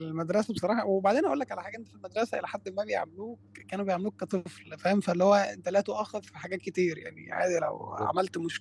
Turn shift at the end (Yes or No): No